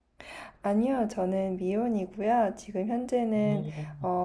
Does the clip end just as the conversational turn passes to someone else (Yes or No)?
No